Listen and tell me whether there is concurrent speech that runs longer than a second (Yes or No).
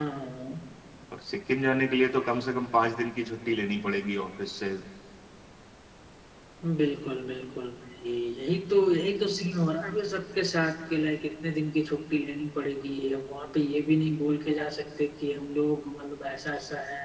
No